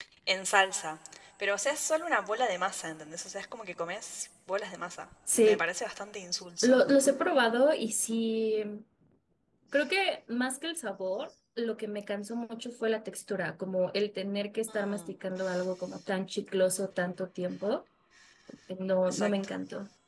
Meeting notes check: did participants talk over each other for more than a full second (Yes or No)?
No